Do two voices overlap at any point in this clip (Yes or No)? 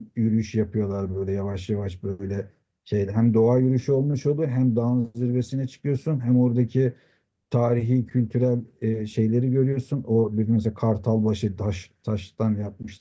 No